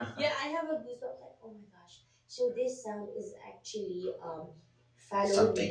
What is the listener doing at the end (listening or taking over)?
listening